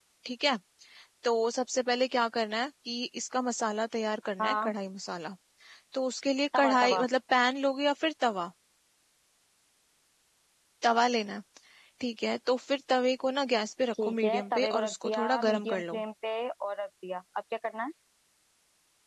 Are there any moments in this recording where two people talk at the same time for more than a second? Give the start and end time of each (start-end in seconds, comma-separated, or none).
14.0-16.0